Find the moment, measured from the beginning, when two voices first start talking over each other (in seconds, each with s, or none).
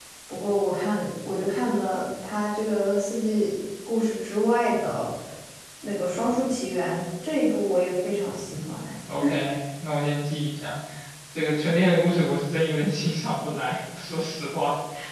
none